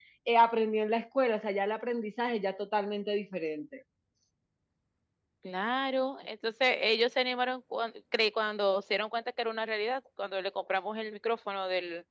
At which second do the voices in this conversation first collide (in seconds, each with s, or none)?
none